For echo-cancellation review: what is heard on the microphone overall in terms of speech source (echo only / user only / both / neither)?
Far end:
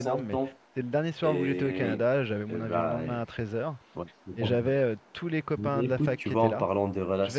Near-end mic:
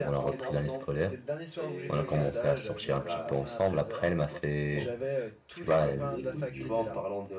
both